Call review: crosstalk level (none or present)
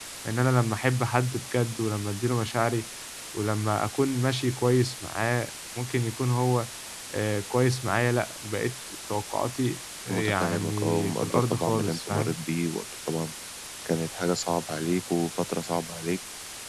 present